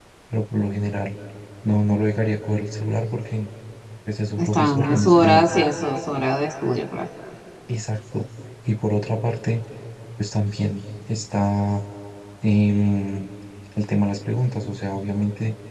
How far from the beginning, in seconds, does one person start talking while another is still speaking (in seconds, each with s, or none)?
4.4 s